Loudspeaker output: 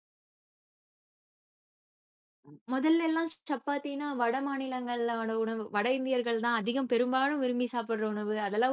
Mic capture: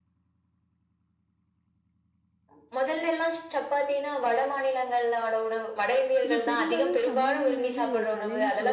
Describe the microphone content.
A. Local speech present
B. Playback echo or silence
A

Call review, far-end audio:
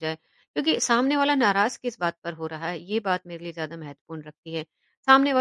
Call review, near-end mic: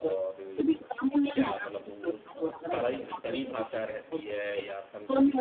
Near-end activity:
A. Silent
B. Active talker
B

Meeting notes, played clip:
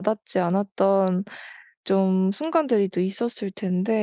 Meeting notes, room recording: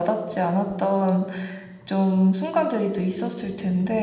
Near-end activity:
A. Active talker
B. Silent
B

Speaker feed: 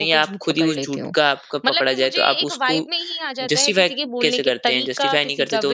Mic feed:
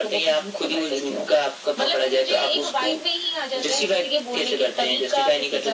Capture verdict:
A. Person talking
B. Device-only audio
B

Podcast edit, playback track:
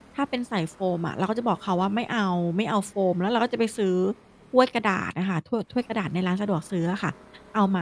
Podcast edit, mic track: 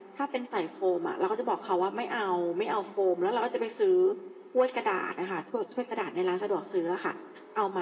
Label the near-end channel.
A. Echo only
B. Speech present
A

